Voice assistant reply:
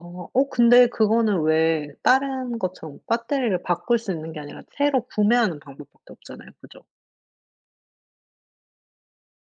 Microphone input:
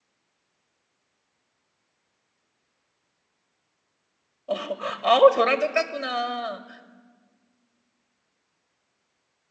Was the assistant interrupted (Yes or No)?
Yes